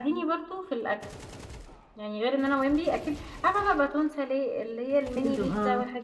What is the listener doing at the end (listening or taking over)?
listening